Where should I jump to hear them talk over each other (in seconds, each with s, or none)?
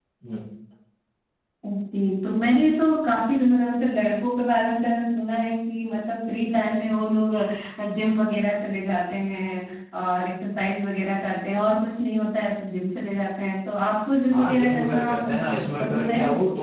14.3 s